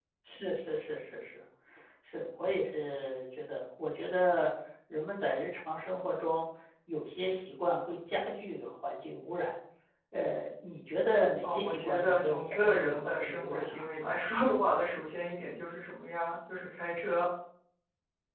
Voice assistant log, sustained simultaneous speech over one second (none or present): present